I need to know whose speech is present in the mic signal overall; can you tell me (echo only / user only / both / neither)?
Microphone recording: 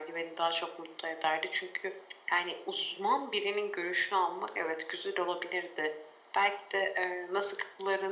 echo only